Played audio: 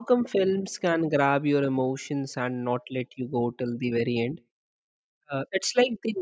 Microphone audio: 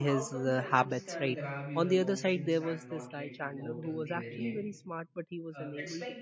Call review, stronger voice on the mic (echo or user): user